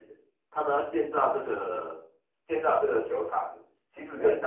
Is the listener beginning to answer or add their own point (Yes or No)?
No